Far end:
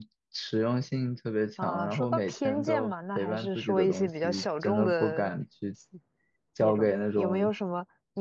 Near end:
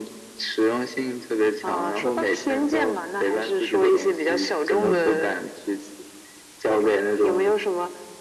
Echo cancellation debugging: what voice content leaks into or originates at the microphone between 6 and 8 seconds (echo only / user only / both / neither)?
echo only